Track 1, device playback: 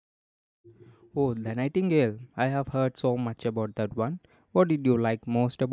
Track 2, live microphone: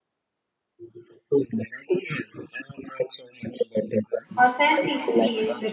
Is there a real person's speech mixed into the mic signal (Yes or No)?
Yes